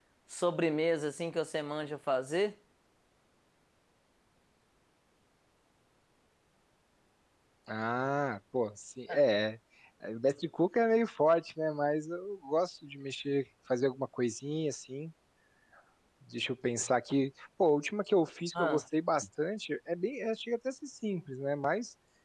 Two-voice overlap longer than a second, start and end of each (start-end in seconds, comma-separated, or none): none